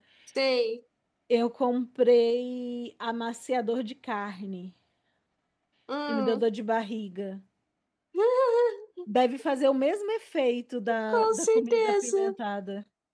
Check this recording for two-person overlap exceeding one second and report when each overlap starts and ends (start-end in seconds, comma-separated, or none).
11.1-12.3